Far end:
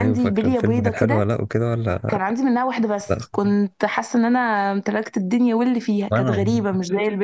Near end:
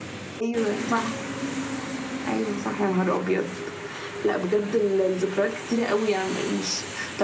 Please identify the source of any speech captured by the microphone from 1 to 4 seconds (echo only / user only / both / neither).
user only